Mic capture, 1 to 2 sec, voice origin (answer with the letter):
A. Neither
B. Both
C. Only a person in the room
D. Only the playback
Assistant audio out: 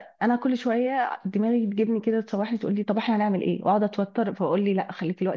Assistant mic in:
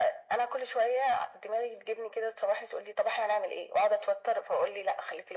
D